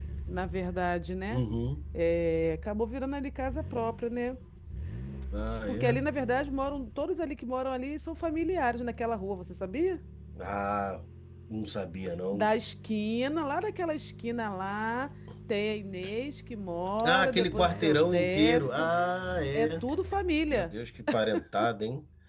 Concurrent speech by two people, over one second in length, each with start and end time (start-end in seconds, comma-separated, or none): 17.0-18.9